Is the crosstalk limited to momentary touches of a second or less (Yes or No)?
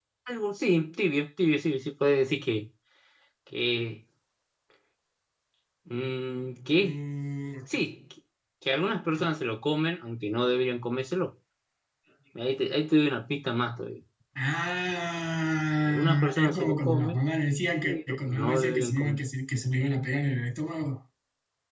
No